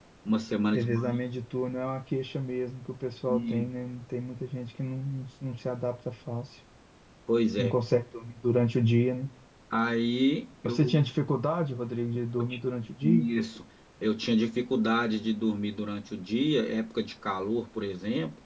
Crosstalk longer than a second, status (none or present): none